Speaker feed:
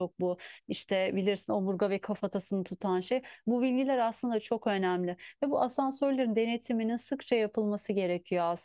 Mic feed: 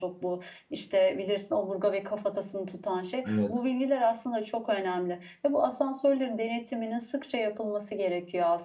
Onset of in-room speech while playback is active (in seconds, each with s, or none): 3.3 s